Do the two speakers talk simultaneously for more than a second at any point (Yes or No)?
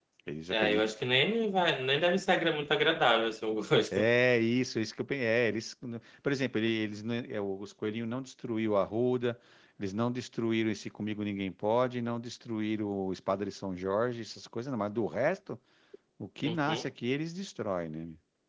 No